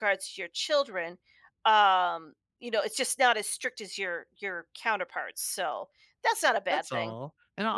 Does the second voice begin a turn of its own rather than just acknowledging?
Yes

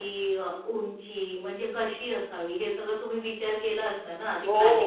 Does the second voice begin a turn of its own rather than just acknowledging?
Yes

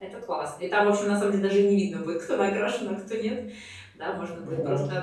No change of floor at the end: Yes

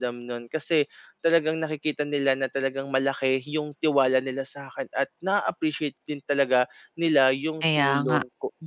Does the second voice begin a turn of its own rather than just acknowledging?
No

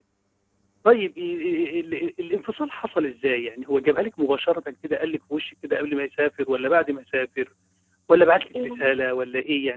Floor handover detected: No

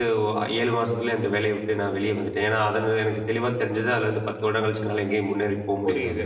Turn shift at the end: Yes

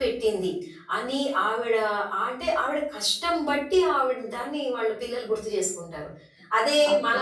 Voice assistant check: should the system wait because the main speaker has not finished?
Yes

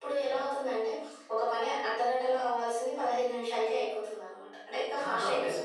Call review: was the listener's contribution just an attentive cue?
No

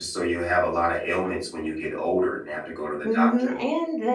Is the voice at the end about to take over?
Yes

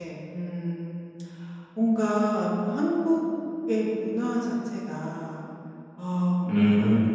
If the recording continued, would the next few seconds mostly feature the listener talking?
No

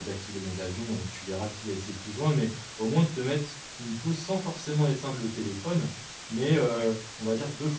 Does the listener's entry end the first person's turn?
No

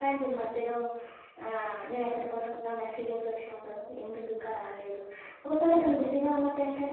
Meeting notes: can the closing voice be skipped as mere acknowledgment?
Yes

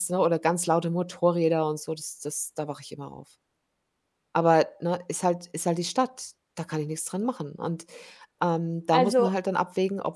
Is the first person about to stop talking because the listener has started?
No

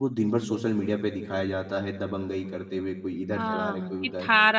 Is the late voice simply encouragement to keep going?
No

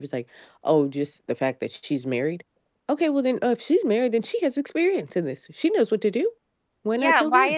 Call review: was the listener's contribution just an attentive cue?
No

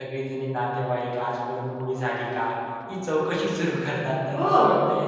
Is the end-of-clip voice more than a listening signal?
No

